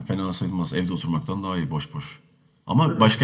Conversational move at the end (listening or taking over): listening